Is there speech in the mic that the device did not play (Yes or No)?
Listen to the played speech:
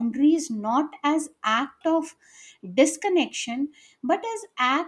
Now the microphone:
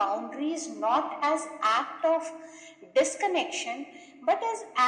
No